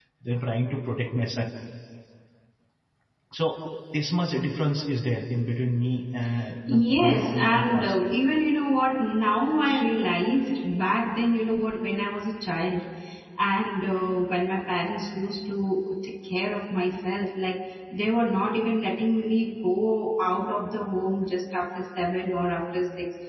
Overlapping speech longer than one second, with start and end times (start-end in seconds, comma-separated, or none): 6.7-8.2